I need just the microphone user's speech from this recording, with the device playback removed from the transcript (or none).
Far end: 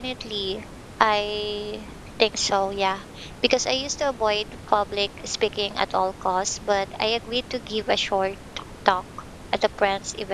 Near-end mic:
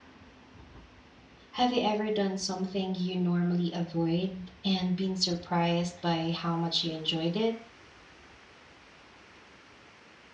Have you ever done something you normally avoid and been surprised by how much you enjoyed it?